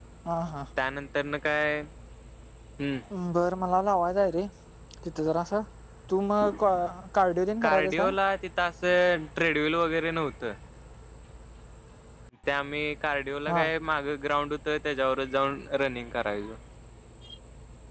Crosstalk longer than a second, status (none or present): none